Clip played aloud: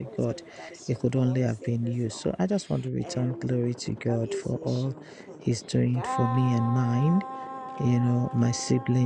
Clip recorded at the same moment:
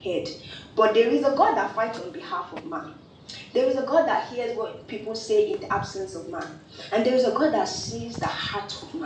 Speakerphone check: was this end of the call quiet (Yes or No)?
No